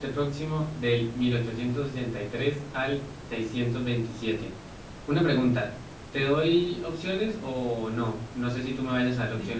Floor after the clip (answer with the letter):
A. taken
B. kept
A